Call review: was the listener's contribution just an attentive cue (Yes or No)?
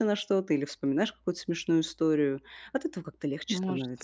No